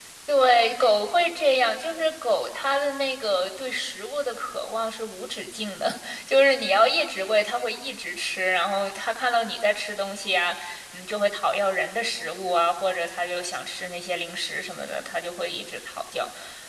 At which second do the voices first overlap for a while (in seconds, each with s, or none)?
none